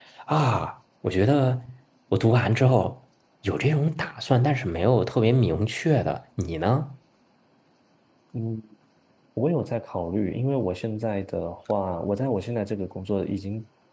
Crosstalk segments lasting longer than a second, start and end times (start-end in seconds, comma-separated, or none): none